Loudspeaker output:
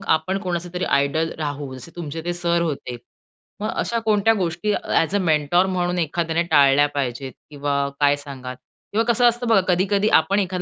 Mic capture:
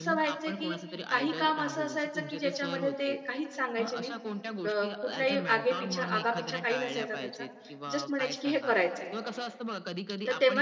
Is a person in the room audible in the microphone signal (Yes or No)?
Yes